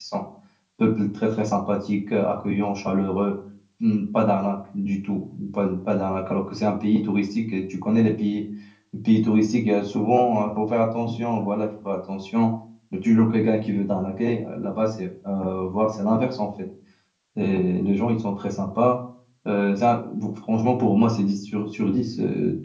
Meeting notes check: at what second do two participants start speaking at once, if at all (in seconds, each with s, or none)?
none